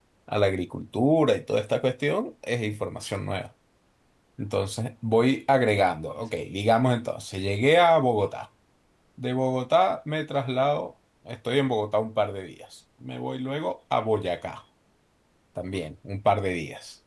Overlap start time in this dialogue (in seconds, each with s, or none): none